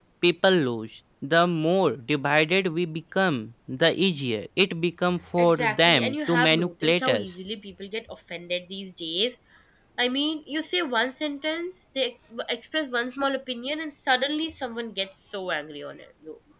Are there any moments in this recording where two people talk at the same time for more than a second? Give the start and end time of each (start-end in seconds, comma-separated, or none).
5.4-7.3